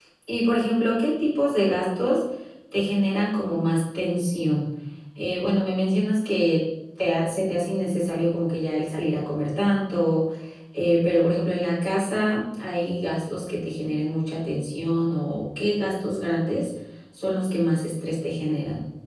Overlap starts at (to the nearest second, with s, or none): none